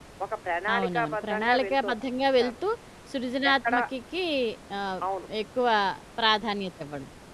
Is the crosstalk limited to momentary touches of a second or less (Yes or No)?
No